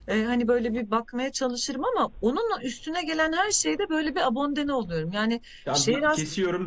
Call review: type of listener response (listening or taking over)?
taking over